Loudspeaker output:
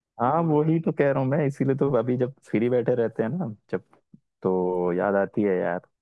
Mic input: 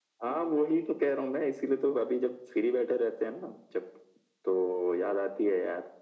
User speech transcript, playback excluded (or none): none